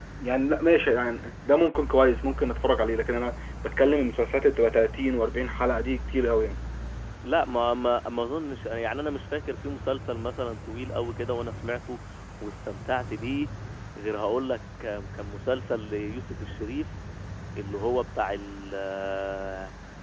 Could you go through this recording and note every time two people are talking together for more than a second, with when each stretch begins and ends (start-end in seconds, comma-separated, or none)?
none